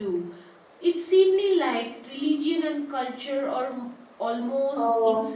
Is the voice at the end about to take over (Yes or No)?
Yes